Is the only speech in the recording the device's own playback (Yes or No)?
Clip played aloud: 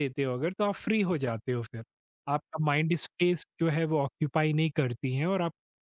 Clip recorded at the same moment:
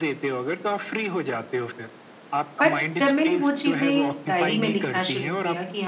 No